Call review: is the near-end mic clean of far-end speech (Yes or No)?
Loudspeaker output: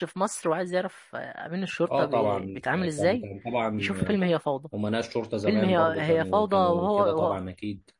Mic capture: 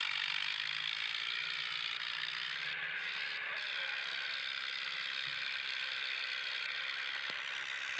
Yes